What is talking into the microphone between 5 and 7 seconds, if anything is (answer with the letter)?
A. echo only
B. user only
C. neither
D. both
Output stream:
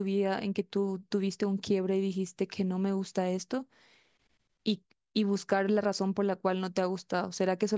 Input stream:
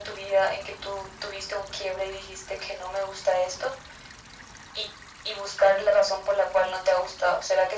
A